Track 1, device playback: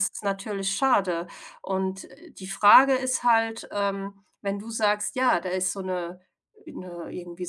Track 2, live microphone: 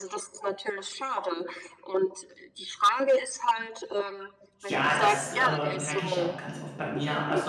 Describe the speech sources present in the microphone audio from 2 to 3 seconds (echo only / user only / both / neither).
echo only